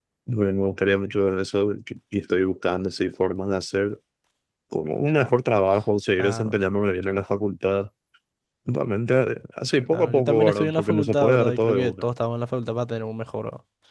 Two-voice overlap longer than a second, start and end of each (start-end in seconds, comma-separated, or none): 9.9-12.0